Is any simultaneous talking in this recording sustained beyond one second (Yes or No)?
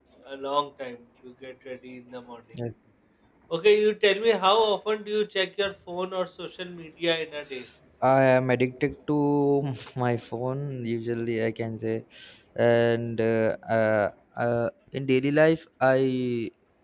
No